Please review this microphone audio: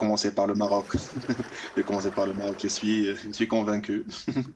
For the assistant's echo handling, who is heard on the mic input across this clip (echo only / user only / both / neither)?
user only